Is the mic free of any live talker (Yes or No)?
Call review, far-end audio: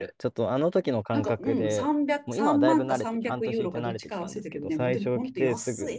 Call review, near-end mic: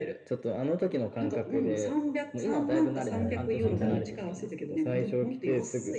No